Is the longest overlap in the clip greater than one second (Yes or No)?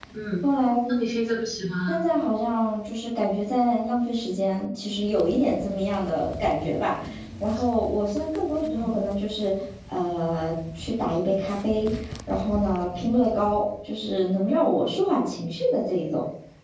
No